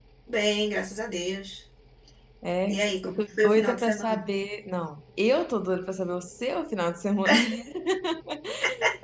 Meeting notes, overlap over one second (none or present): present